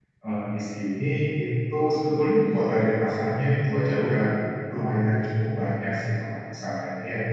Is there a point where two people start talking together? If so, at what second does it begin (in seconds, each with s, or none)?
none